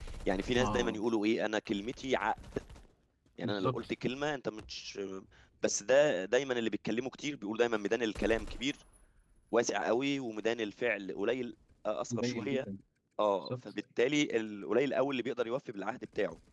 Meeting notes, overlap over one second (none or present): none